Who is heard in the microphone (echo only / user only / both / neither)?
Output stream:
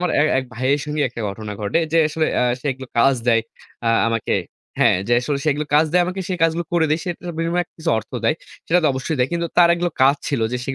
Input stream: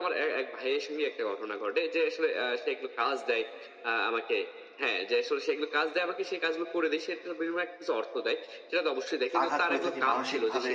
both